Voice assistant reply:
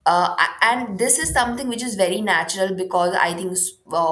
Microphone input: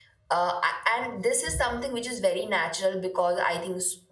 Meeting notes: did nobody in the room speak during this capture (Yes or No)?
Yes